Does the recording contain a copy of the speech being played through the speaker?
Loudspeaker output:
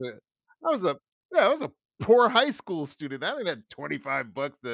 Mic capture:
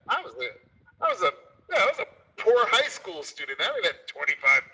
Yes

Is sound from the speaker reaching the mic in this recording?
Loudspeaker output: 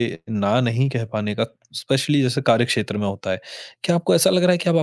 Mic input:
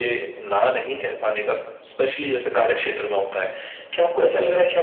Yes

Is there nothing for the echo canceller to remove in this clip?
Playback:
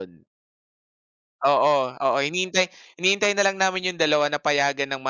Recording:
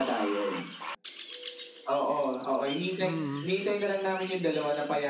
No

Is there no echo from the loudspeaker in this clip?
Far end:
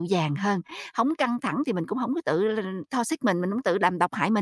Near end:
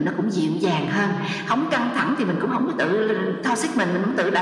No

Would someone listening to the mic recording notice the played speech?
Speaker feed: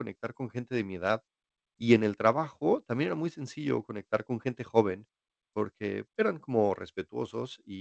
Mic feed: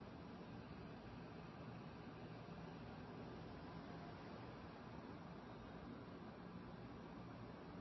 No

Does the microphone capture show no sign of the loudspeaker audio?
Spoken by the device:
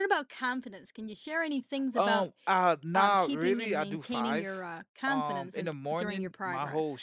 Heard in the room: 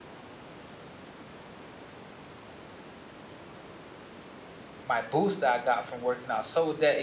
Yes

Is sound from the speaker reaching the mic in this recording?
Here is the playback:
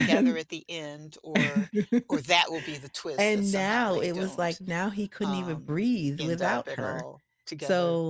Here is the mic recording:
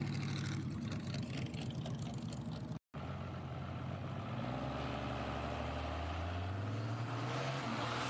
No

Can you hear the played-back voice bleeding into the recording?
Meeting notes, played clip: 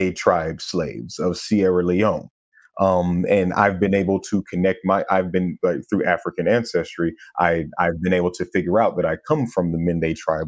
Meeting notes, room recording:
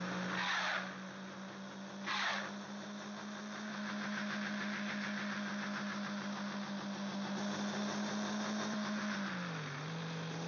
No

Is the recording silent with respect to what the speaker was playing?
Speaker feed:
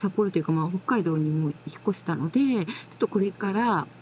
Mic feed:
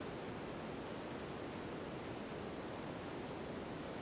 Yes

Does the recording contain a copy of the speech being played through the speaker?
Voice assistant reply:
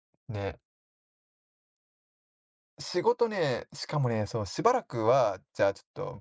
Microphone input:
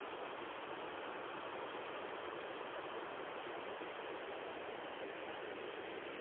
No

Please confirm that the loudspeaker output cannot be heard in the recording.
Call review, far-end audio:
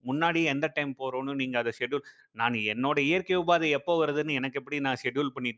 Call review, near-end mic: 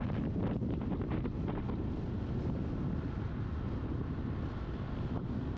Yes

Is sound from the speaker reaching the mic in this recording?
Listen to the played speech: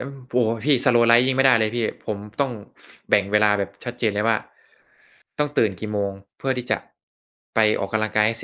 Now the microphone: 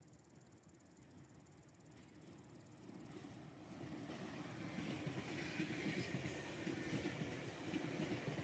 No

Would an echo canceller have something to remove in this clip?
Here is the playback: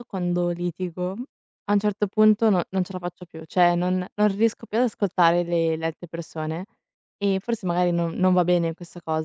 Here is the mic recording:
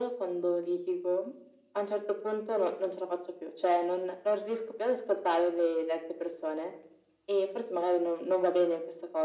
Yes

